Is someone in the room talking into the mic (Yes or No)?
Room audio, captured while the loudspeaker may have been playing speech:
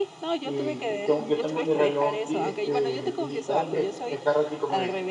Yes